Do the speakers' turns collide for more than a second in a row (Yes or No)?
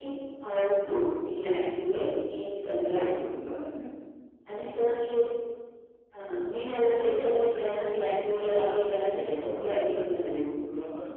Yes